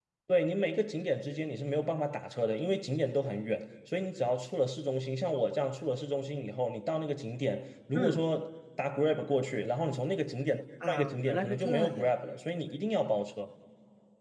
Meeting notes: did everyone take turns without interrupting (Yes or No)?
No